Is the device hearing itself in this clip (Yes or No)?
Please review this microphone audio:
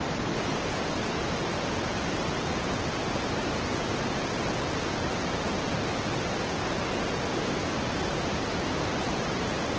No